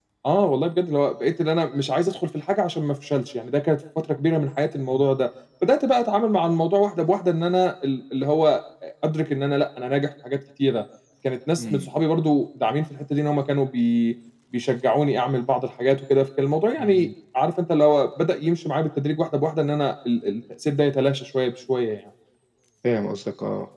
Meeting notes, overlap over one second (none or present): none